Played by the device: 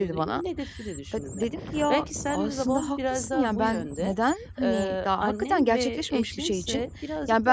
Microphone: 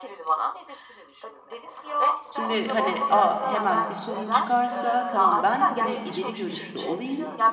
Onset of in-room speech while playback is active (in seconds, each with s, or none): 2.3 s